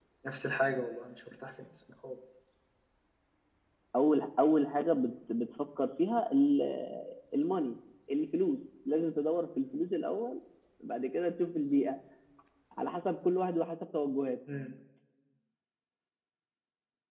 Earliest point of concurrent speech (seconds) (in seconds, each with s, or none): none